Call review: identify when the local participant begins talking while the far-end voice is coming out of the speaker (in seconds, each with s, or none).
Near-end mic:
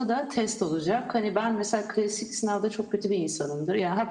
none